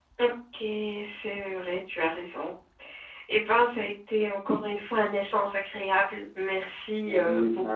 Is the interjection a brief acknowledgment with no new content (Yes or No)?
No